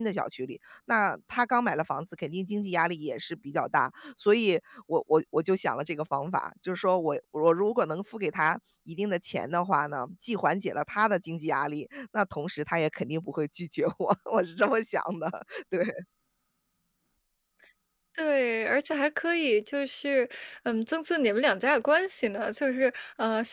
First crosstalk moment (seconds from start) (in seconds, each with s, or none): none